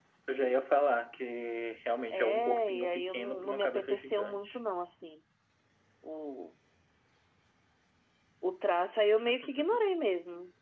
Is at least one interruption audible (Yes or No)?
Yes